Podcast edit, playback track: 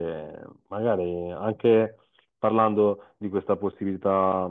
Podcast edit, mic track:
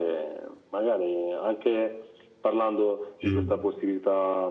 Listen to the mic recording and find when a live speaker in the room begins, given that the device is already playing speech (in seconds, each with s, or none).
3.2 s